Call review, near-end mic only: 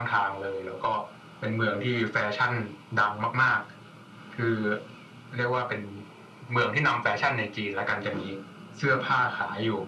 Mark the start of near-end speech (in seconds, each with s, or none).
none